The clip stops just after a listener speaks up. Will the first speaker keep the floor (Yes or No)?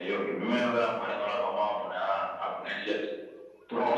Yes